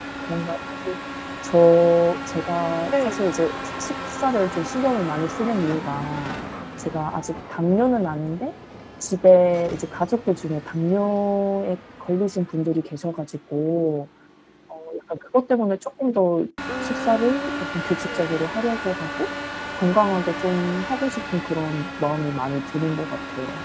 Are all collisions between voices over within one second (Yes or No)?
No